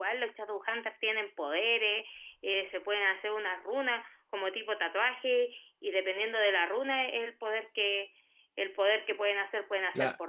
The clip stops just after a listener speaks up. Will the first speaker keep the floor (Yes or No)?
No